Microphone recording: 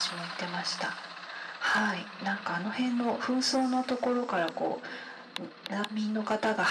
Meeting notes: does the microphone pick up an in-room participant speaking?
No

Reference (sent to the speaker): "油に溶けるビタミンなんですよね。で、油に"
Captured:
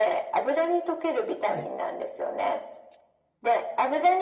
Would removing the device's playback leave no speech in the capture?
No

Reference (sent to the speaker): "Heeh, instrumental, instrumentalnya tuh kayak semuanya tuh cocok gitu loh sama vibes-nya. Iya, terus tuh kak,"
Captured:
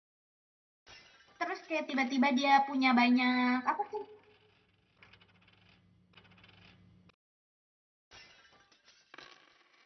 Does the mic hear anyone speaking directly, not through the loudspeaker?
Yes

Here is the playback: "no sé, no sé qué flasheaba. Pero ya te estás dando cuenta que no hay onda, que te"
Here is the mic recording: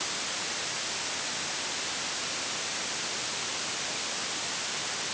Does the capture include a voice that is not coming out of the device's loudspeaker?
No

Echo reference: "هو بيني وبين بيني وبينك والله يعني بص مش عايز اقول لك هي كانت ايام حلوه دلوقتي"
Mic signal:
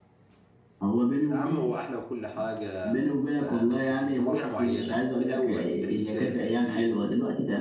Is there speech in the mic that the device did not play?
Yes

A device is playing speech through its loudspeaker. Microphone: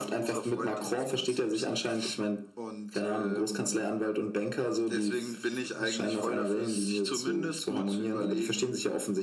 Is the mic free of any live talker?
Yes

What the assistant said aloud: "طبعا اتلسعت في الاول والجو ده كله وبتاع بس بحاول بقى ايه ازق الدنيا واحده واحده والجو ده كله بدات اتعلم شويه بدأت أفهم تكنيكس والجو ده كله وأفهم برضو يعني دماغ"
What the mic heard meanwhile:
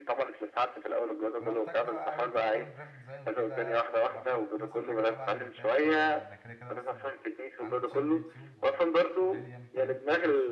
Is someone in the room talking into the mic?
Yes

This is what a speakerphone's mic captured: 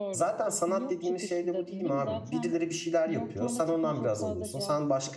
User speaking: Yes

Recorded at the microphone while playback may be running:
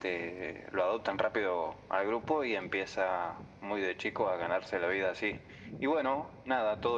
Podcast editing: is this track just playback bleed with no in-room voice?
Yes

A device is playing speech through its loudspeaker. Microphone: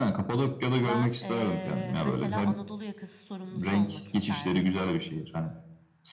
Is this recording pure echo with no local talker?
No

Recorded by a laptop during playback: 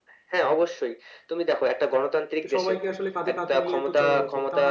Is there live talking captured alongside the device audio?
Yes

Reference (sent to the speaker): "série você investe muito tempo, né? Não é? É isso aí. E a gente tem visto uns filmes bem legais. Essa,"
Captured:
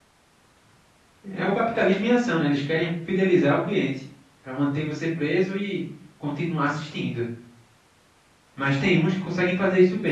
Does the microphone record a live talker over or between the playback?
Yes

